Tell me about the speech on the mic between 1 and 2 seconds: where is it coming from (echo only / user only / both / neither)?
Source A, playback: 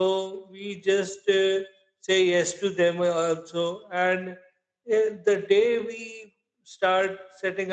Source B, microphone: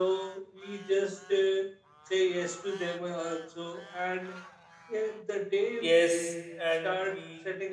echo only